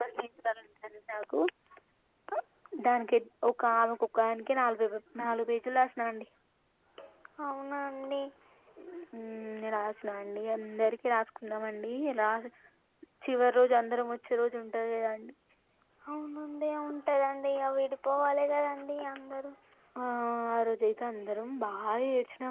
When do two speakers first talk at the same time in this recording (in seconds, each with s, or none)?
none